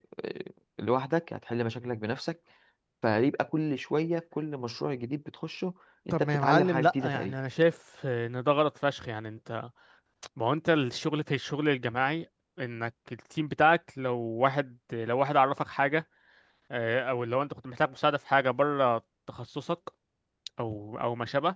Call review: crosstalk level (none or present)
present